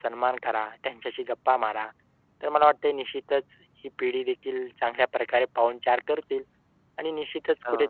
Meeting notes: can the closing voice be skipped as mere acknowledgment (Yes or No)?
Yes